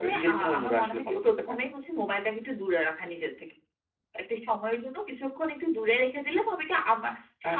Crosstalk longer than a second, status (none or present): present